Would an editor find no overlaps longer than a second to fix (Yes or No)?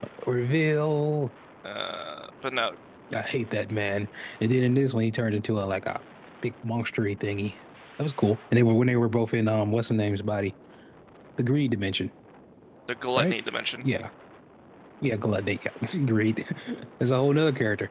Yes